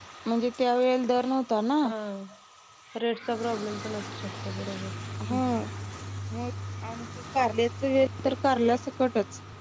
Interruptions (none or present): none